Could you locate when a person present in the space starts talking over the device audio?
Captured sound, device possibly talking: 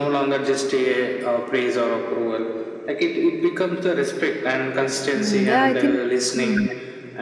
5.2 s

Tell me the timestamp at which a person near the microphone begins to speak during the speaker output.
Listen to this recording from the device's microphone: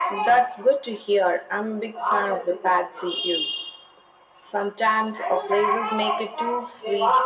none

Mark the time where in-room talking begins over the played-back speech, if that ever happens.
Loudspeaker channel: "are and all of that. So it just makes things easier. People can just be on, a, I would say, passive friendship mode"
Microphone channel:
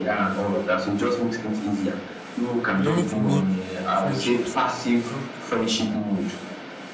2.7 s

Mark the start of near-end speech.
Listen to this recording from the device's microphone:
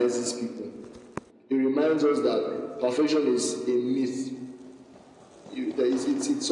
none

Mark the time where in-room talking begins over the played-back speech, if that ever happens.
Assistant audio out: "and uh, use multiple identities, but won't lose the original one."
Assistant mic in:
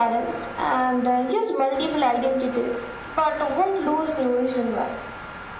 none

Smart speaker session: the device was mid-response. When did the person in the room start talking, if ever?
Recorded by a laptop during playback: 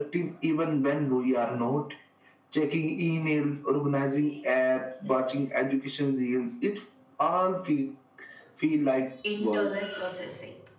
9.2 s

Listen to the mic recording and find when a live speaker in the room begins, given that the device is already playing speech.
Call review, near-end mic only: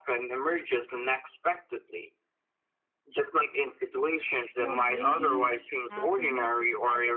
4.5 s

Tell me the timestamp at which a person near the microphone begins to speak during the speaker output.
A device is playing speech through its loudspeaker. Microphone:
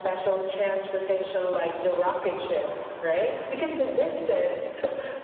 none

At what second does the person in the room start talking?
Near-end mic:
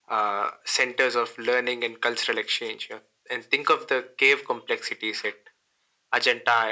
none

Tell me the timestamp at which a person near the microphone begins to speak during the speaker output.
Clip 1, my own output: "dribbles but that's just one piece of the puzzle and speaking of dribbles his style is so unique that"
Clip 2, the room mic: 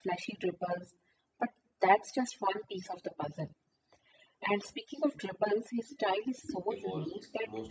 6.7 s

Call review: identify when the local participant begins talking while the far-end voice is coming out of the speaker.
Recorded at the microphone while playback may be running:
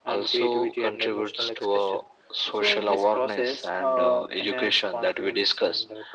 none

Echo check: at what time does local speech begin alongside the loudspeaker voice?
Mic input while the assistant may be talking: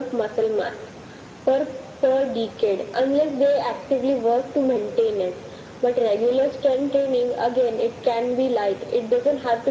none

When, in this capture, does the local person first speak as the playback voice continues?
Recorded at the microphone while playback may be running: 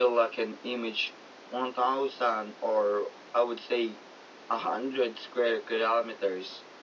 none

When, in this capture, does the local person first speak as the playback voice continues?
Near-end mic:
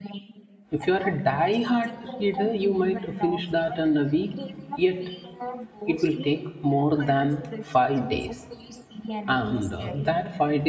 0.8 s

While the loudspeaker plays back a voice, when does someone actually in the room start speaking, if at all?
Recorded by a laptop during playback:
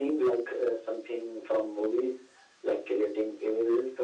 none

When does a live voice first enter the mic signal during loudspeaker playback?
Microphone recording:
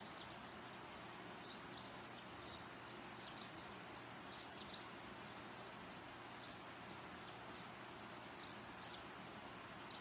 none

